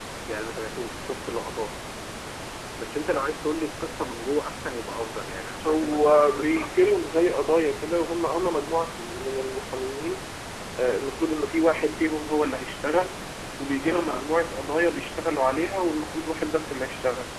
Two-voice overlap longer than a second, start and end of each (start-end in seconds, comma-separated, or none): 5.6-7.0